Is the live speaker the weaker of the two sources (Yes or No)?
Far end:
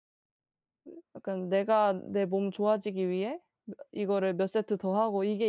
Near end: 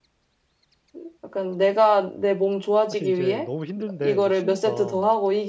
Yes